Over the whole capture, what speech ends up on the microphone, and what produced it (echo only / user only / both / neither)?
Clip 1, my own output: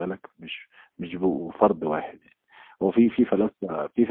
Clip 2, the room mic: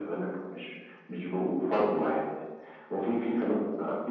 echo only